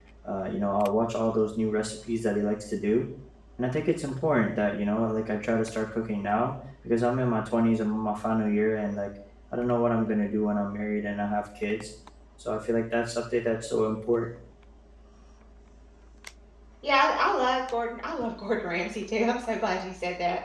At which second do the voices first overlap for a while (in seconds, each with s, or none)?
none